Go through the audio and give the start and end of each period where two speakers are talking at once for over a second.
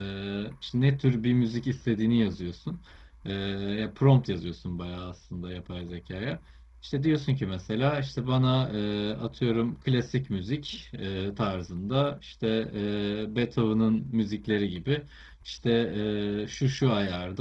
none

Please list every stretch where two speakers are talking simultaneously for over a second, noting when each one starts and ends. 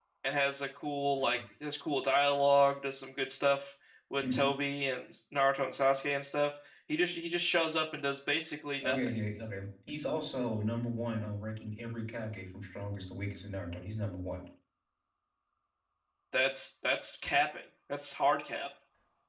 none

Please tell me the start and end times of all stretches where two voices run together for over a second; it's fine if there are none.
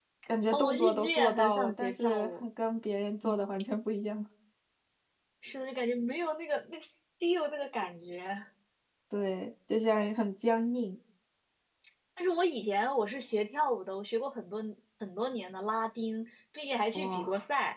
0.5-2.4

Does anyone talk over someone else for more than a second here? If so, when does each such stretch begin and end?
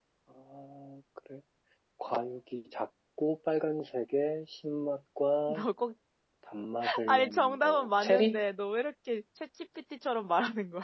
7.1-8.4

